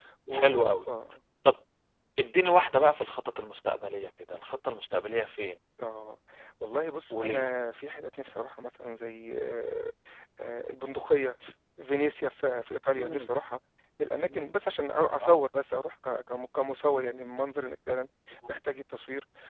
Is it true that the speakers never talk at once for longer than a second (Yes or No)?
Yes